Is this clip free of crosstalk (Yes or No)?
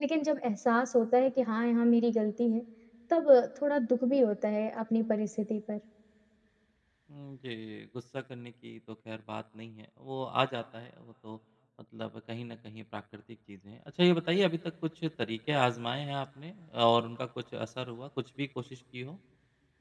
Yes